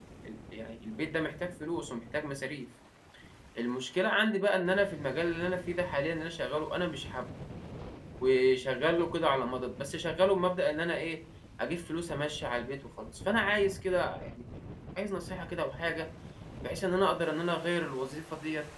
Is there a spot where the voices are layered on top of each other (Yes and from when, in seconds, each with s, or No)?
No